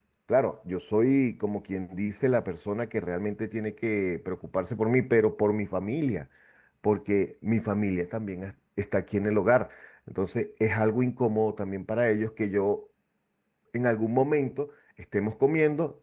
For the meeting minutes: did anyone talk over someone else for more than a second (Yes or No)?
No